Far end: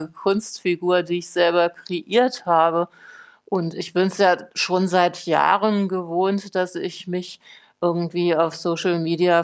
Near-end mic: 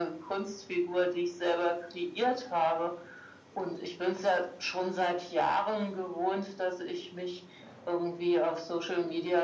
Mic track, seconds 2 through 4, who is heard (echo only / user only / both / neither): echo only